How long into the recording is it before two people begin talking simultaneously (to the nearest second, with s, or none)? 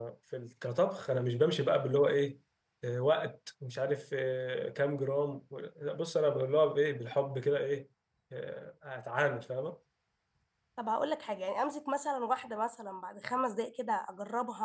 none